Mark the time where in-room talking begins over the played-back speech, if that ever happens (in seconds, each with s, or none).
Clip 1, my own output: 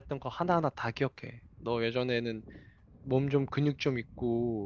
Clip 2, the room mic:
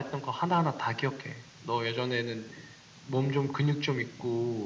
none